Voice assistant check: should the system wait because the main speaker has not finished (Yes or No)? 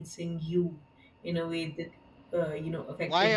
No